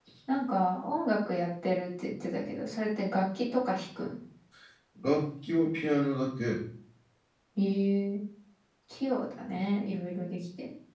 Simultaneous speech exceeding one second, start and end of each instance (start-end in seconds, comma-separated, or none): none